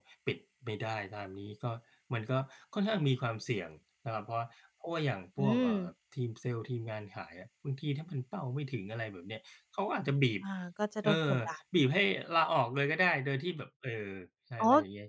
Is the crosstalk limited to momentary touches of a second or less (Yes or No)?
Yes